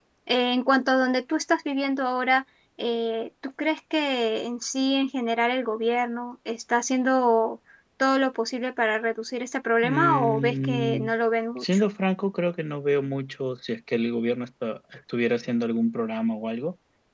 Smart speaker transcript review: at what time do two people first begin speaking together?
10 s

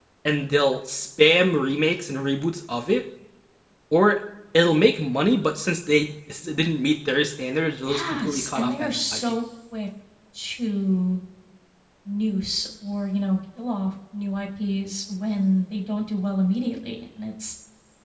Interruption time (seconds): 8 s

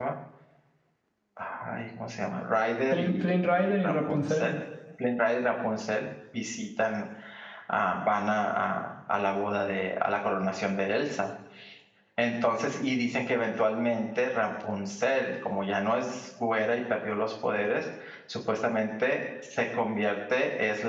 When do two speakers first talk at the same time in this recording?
3 s

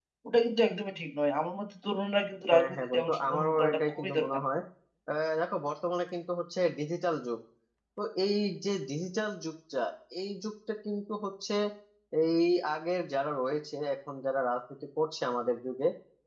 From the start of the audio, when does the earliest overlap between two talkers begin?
3 s

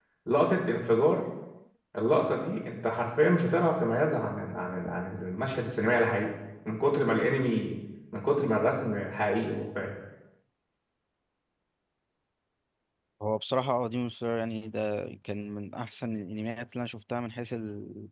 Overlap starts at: none

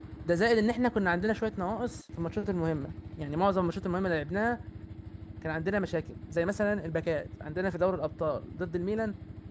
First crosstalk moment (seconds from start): none

